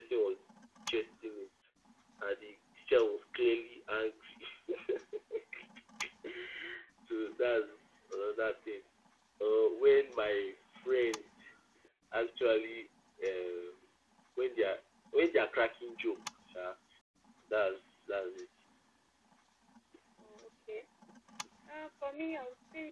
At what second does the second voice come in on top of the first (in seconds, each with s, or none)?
none